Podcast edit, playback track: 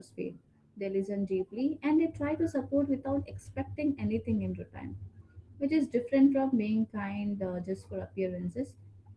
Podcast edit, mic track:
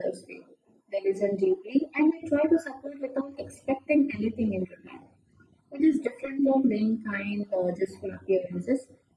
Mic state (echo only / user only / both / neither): echo only